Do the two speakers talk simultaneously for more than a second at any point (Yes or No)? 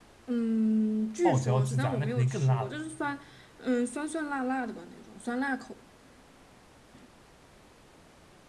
Yes